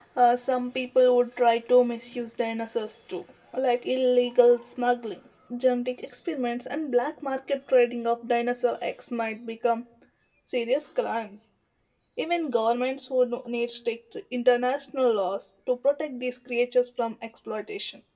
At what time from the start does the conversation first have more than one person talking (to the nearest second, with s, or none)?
none